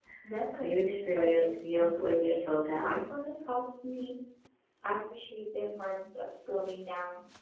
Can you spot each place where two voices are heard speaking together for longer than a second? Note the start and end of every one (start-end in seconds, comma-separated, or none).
0.6-3.0